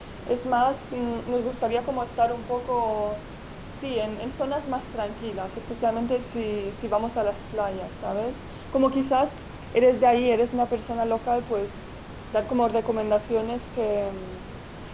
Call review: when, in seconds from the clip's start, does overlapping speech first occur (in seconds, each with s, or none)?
none